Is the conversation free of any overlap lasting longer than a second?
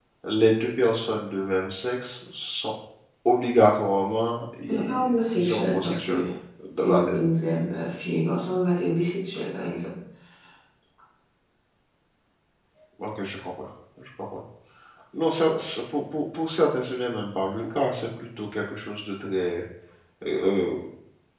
No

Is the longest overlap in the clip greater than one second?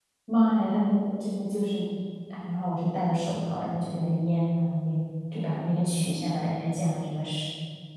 No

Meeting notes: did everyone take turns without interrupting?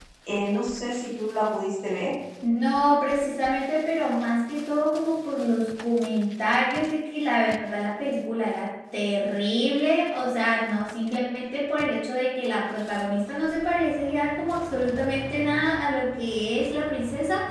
Yes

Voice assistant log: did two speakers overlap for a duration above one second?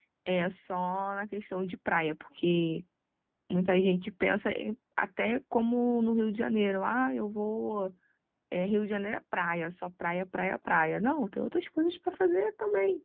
No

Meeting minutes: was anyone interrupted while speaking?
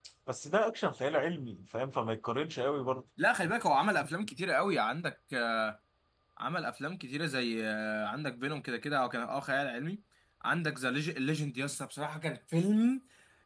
No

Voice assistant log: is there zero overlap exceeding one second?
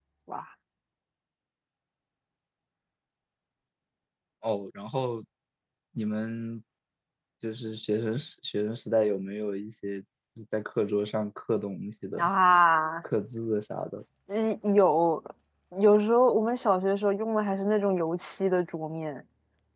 Yes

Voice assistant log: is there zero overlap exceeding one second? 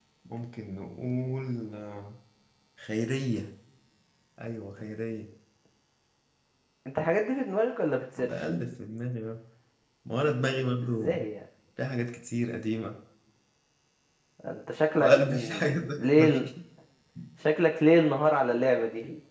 No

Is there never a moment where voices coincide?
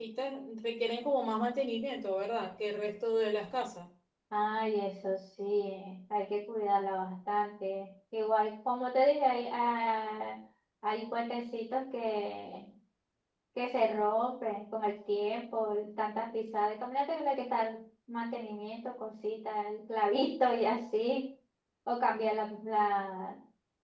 Yes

